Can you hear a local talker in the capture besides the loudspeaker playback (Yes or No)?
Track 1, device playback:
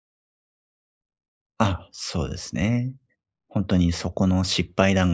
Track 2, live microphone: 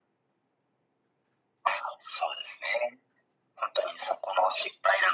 No